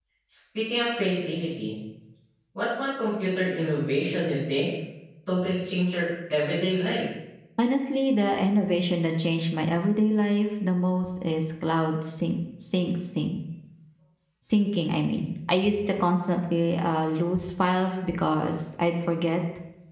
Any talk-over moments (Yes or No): No